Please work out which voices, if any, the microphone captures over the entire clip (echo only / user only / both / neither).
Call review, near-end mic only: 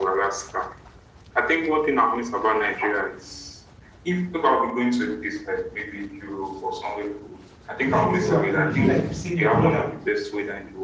both